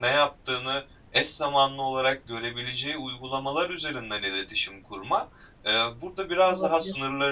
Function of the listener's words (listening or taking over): listening